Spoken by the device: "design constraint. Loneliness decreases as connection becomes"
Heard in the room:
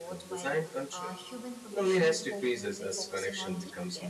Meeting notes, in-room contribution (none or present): present